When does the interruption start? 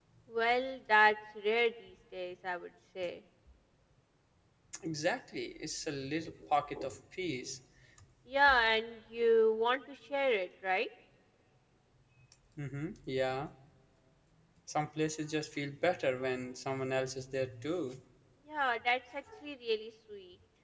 none

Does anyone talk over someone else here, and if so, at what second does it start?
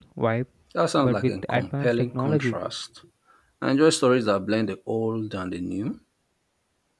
1.0 s

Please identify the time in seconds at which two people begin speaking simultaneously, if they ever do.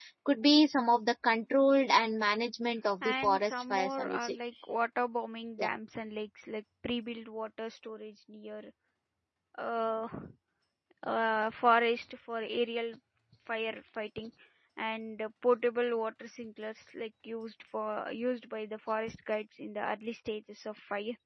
3.0 s

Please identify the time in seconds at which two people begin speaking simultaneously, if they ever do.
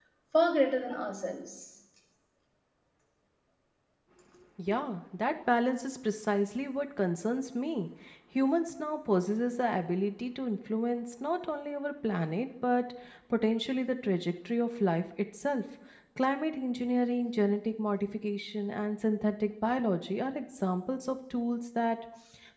none

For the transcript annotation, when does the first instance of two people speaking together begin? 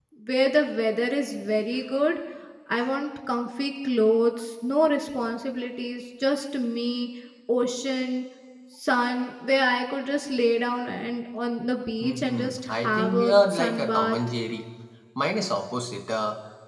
12.0 s

